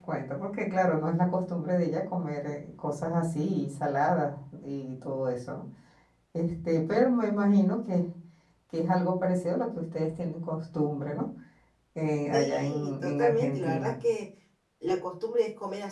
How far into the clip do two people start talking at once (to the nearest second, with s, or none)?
12 s